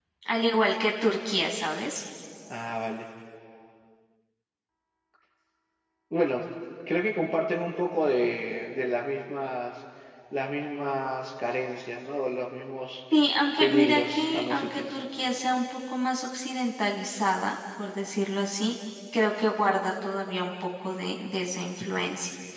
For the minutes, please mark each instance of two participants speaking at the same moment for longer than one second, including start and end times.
13.6-15.0

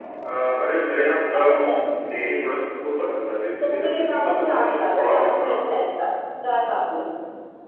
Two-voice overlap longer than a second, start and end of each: 3.6-5.5

